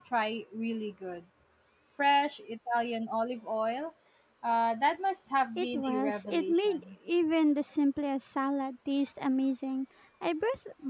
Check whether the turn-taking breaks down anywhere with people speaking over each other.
Yes, from 5.6 s

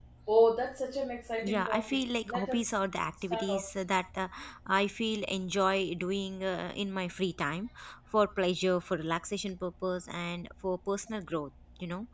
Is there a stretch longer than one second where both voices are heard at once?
Yes, from 1.4 s

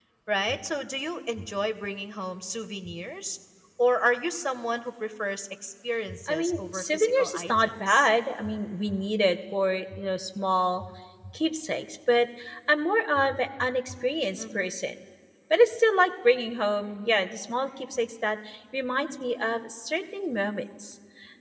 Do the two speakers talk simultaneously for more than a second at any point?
Yes, from 6.3 s

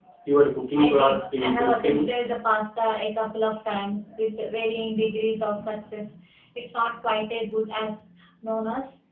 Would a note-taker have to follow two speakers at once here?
Yes, from 0.8 s

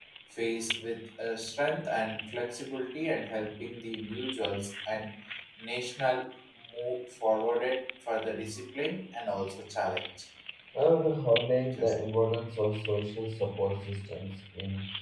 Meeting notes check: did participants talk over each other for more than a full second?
No

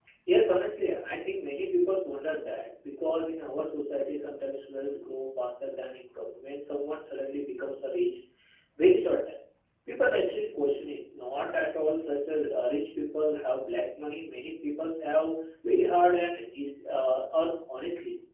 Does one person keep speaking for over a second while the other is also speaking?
No

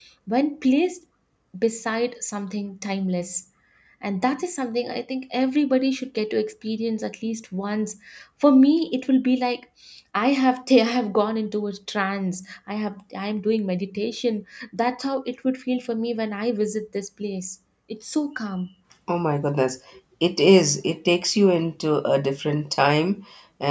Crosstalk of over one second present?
No

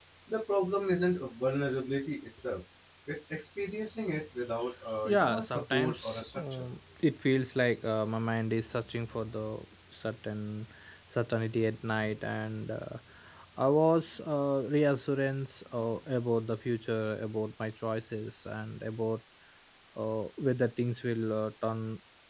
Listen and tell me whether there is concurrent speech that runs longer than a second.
Yes, from 5.0 s

